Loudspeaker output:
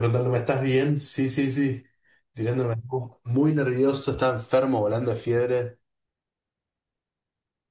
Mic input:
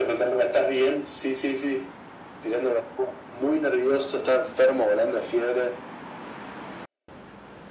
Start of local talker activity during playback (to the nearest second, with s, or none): none